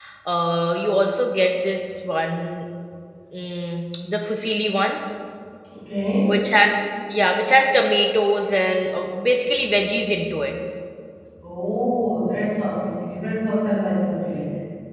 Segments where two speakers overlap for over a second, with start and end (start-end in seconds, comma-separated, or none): none